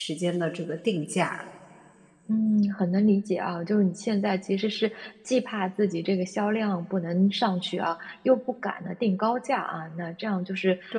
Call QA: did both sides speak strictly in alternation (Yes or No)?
Yes